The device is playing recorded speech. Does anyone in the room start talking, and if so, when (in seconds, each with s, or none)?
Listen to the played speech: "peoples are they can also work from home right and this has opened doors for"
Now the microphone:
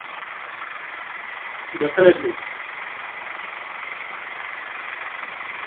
1.8 s